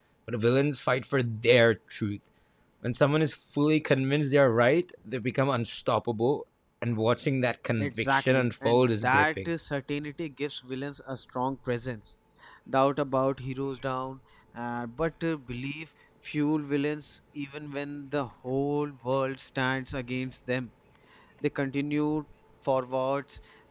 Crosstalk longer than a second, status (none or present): present